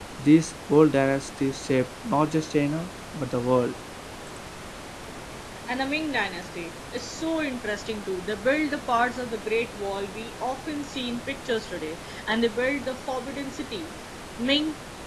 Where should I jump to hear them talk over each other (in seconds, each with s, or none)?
none